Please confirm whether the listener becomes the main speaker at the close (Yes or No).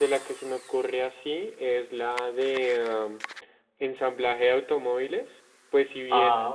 No